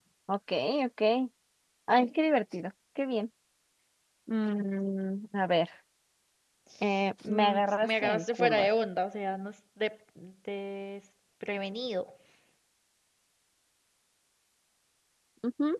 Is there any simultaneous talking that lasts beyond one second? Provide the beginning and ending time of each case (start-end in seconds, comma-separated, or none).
7.3-8.7